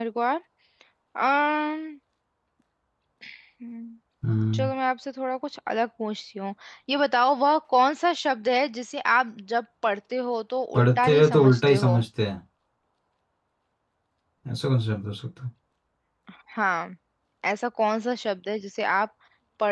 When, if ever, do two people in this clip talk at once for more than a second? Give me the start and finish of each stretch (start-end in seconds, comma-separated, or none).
10.7-12.0